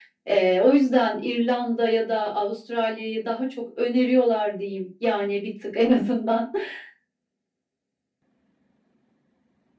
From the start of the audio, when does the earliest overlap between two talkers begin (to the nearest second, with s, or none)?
none